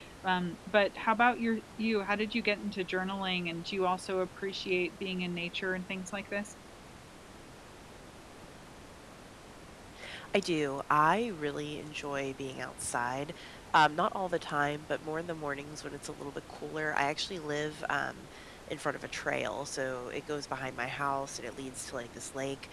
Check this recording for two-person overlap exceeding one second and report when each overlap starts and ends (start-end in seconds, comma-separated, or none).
none